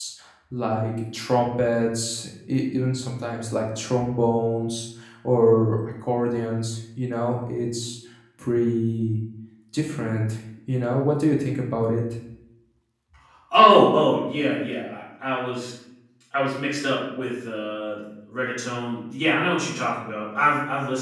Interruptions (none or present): none